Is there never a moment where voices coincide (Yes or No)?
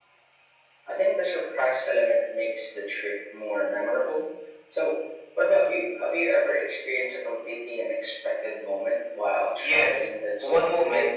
No